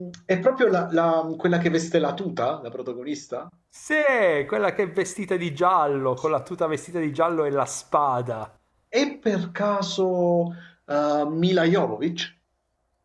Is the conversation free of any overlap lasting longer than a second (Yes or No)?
Yes